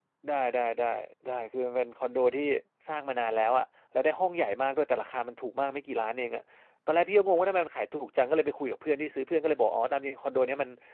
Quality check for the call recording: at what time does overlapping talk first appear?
none

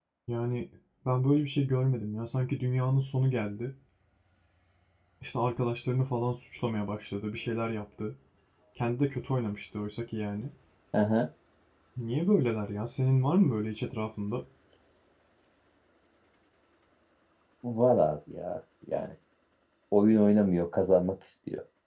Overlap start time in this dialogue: none

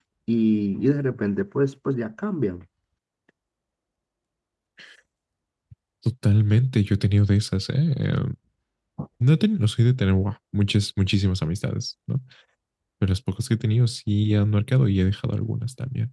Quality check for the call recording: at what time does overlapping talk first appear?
none

